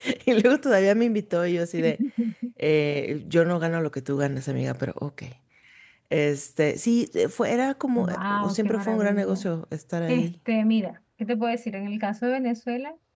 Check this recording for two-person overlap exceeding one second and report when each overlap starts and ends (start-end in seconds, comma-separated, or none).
8.0-9.4